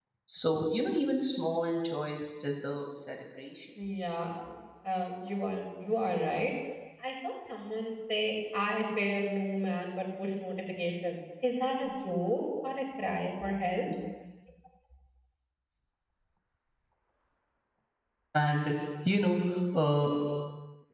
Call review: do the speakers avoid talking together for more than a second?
Yes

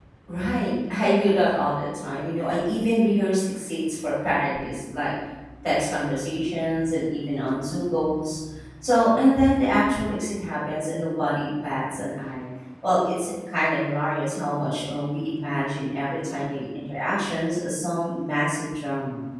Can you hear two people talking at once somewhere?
No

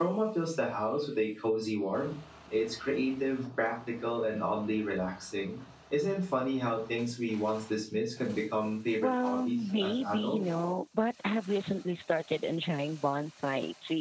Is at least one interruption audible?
Yes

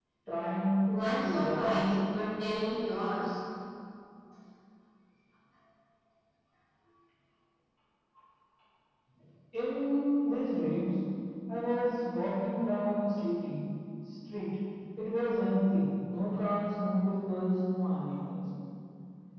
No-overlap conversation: No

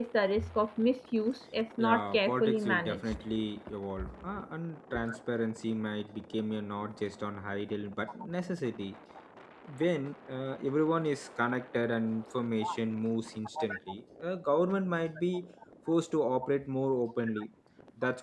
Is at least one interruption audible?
Yes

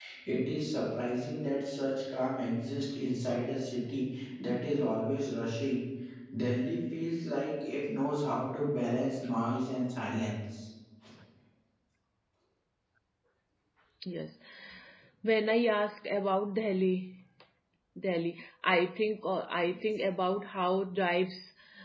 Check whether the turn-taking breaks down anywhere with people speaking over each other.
No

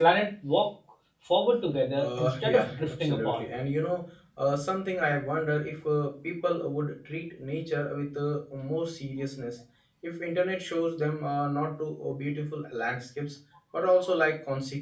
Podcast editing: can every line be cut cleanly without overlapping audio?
No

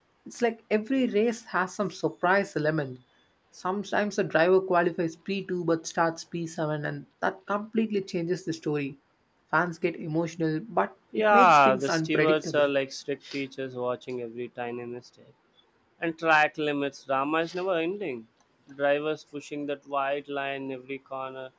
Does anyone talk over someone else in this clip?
Yes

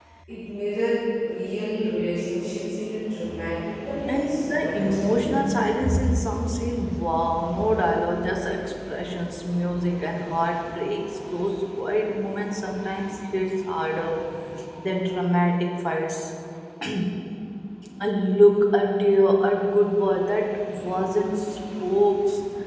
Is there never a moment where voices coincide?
No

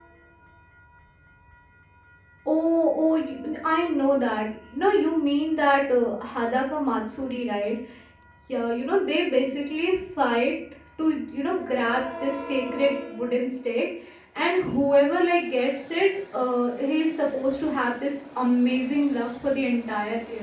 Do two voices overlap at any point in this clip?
No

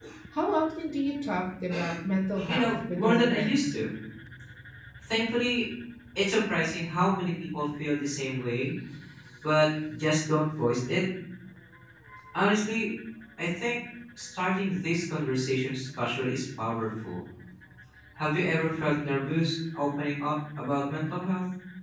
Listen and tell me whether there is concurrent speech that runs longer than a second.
Yes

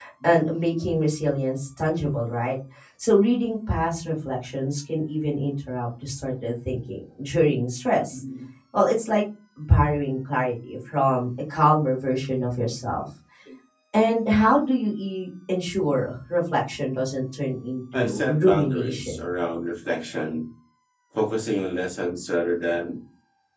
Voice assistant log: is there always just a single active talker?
No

